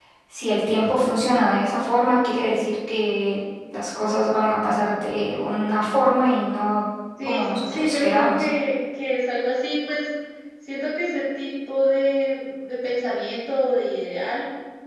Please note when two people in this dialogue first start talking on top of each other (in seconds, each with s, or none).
7.2 s